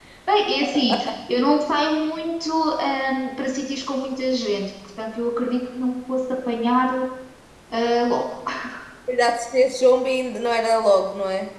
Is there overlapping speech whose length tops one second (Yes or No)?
No